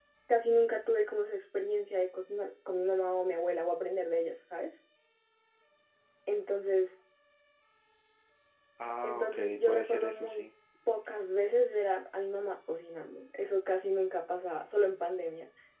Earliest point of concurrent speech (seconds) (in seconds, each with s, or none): 9.0 s